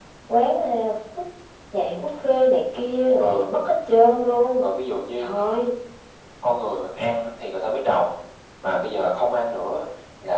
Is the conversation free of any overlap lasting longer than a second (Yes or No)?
Yes